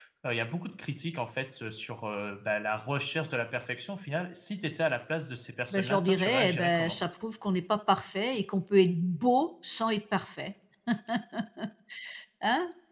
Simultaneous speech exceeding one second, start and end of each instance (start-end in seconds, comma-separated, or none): 5.7-7.0